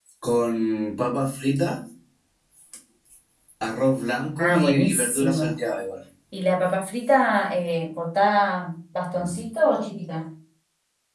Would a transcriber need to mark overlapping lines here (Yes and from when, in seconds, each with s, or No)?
Yes, from 4.4 s